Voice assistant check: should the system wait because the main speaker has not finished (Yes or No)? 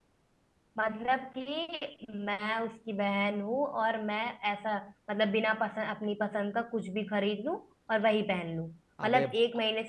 Yes